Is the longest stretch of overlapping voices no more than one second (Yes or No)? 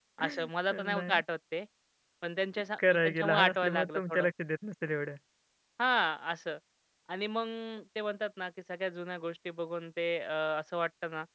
No